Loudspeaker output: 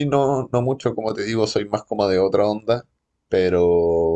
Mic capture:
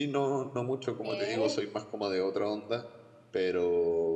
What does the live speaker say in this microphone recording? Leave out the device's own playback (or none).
¿Qué?